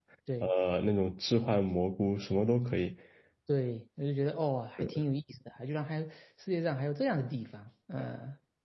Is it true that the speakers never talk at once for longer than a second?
Yes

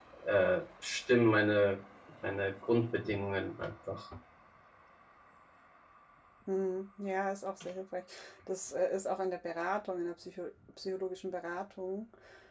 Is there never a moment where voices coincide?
Yes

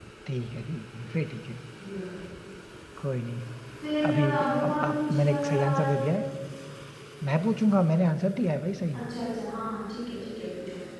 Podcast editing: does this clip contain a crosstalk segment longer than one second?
Yes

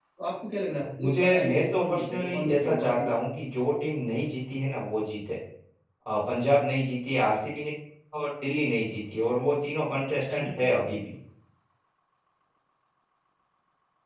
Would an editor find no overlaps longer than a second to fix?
No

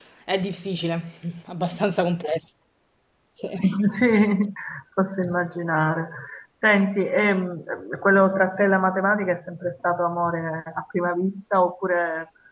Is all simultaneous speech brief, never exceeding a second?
Yes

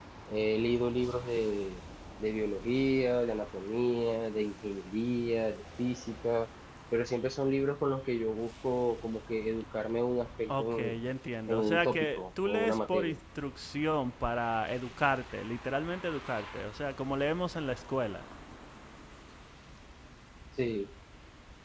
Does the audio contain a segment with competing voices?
Yes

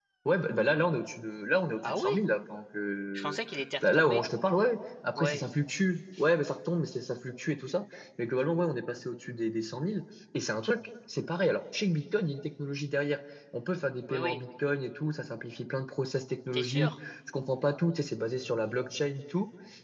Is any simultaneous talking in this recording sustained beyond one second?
No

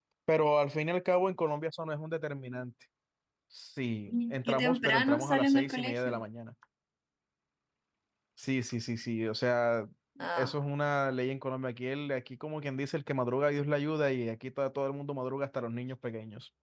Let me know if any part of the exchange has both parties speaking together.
Yes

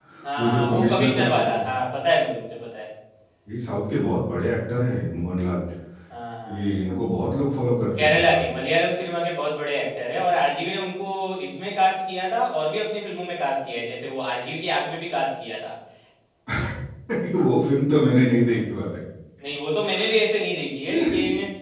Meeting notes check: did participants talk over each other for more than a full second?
Yes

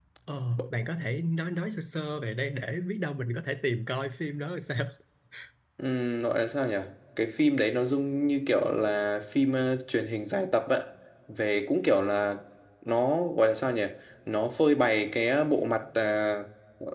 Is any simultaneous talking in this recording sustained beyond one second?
No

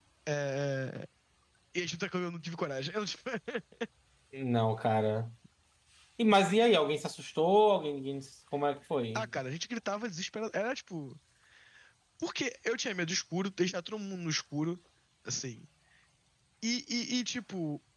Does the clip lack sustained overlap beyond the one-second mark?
Yes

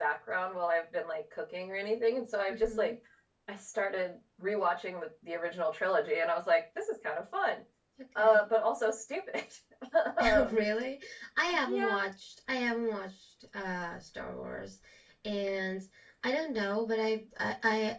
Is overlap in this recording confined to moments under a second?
Yes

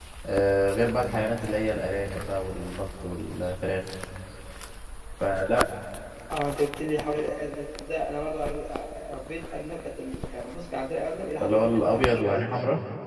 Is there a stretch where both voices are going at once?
Yes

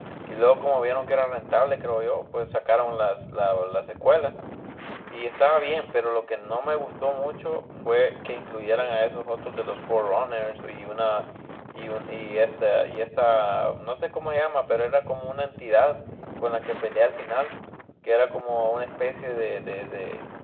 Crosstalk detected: No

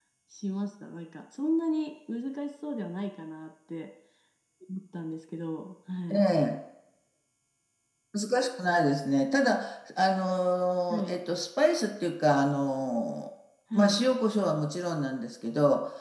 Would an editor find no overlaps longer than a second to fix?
Yes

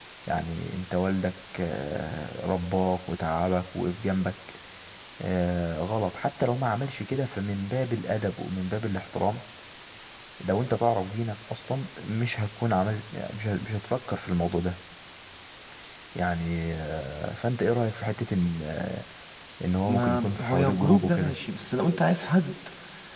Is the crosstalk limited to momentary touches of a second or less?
No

